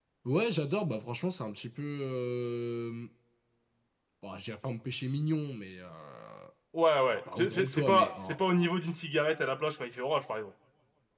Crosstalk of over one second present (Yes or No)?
Yes